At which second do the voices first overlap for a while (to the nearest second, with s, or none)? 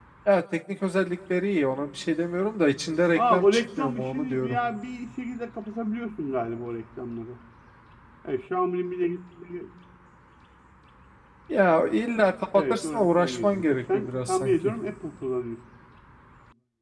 3 s